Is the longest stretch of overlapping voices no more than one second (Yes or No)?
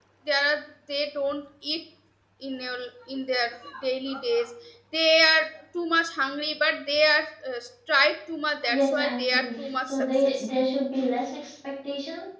No